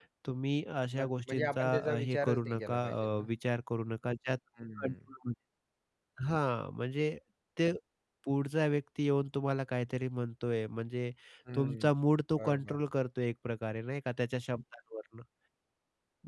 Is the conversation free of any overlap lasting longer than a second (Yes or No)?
No